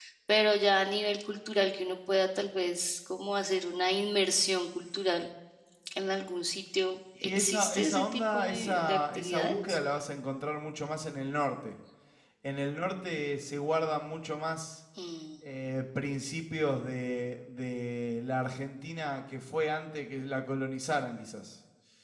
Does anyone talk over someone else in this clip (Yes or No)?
Yes